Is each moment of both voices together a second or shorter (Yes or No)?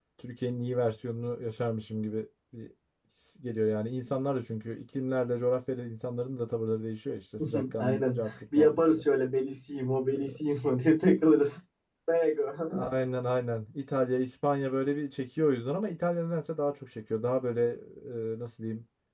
No